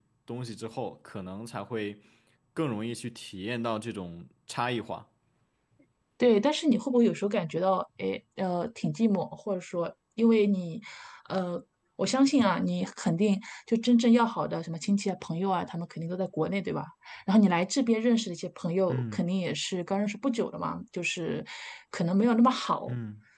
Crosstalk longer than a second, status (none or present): none